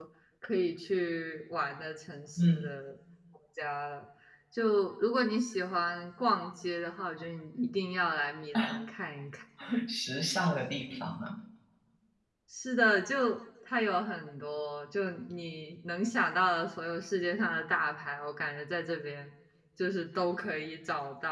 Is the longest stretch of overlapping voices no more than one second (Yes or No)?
Yes